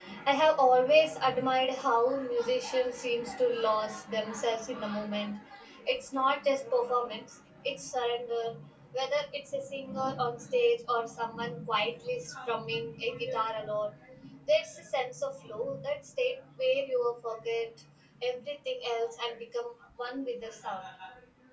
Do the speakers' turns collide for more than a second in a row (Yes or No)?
No